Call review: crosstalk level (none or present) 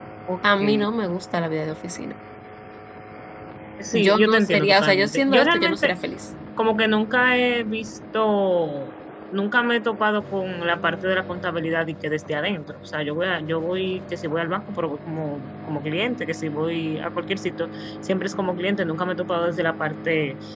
present